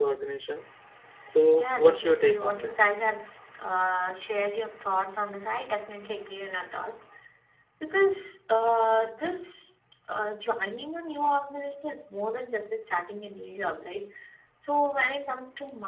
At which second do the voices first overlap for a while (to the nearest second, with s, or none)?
2 s